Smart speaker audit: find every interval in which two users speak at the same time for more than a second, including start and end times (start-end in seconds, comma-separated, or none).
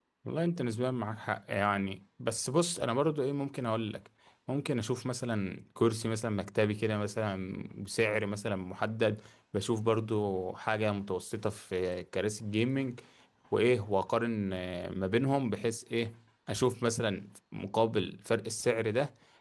none